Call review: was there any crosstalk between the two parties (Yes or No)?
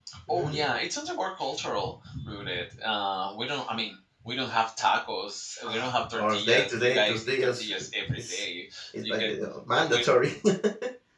Yes